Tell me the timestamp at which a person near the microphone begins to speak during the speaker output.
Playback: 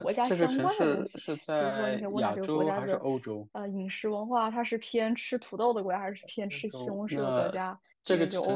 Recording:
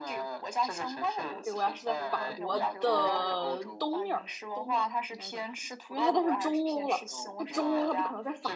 1 s

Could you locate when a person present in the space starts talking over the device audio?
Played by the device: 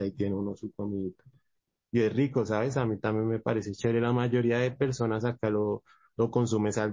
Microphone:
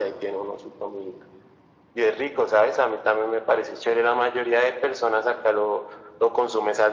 none

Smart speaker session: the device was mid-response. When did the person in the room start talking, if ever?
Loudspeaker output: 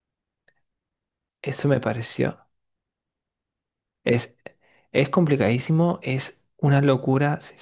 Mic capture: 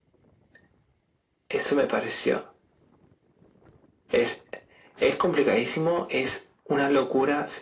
none

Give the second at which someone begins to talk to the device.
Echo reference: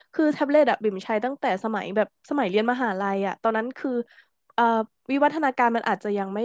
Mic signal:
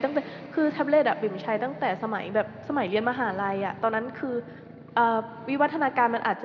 none

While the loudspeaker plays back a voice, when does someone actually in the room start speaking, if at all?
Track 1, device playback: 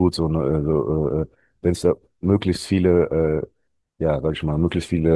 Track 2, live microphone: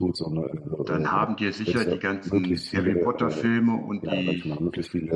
1 s

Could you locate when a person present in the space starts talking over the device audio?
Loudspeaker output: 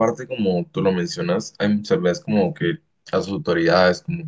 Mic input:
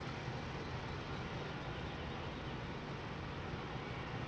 none

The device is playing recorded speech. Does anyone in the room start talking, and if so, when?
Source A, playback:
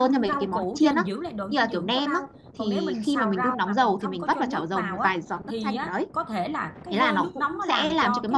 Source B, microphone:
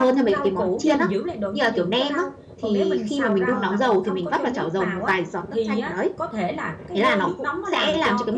3 s

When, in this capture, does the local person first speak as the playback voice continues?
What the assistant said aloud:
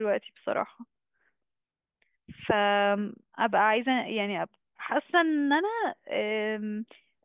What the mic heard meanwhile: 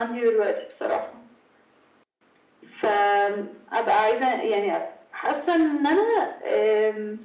none

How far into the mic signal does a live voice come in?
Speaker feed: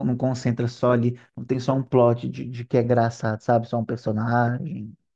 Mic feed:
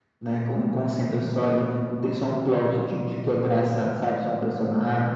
none

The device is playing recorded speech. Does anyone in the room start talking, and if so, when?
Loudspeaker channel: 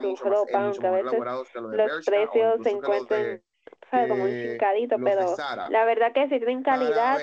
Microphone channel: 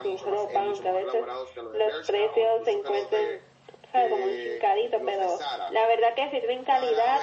none

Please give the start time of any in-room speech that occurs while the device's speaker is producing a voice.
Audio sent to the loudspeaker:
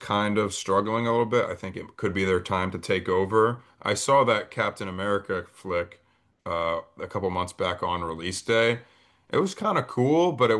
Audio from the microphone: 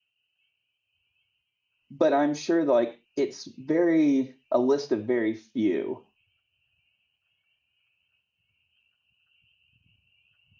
2 s

